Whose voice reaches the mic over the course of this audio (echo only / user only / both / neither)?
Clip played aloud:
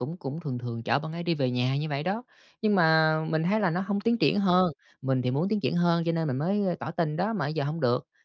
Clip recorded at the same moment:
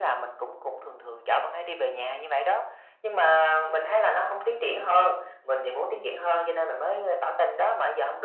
echo only